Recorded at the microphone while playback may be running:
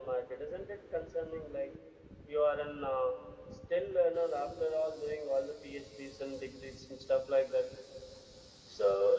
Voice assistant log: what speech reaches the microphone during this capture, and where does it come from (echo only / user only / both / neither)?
echo only